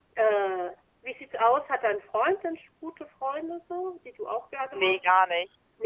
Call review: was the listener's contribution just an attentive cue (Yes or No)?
No